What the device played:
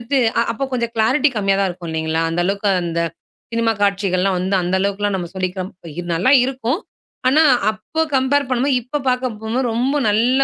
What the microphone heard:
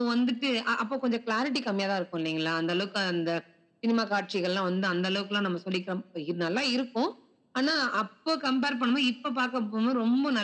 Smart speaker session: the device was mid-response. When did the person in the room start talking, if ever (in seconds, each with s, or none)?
none